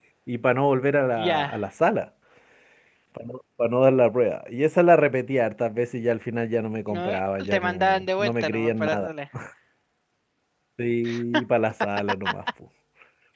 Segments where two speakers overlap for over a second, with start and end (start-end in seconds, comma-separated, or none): 6.9-9.1